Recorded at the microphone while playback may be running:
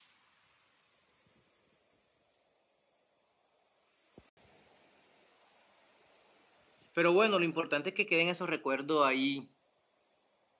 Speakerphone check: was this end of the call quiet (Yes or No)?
No